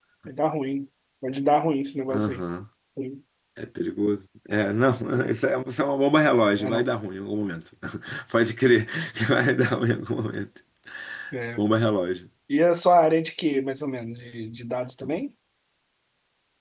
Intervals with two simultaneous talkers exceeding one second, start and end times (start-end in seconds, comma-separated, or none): none